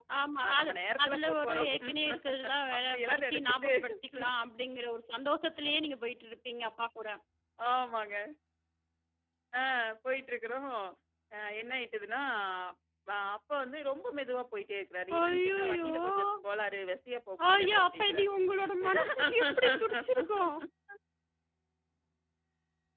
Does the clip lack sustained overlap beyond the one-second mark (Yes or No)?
No